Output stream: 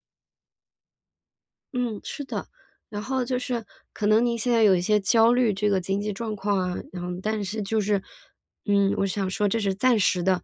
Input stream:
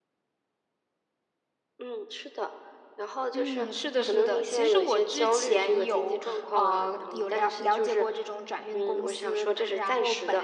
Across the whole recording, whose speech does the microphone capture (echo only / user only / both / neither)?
both